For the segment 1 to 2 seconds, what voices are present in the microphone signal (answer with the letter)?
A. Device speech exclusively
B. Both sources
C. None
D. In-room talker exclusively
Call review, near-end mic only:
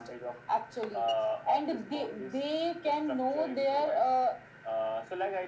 A